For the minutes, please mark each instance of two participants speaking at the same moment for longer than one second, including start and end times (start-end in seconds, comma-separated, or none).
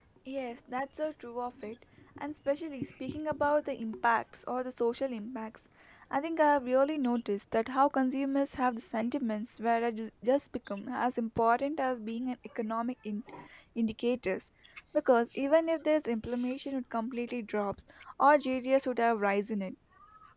none